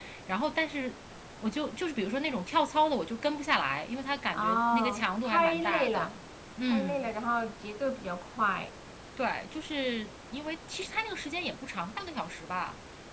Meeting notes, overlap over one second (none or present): present